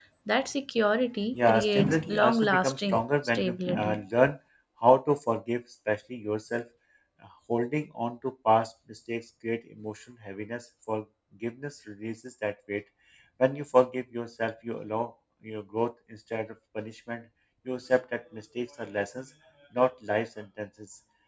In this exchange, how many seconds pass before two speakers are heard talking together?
1.3 s

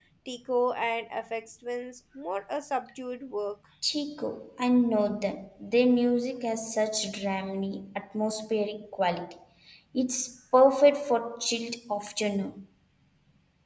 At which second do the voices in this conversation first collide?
none

